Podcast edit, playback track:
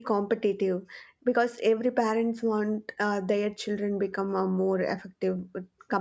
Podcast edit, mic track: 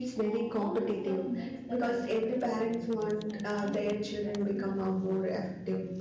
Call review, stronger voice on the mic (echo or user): echo